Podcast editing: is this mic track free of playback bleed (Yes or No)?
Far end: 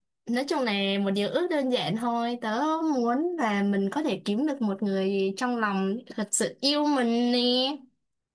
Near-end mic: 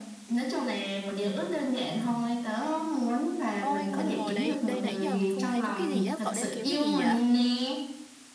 No